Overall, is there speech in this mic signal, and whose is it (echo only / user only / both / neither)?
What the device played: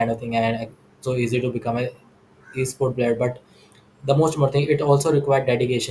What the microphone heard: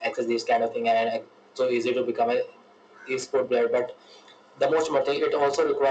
echo only